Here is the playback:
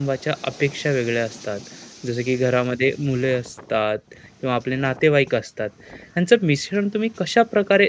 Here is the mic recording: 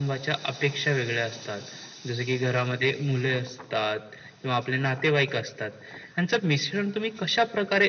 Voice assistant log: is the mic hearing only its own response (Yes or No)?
Yes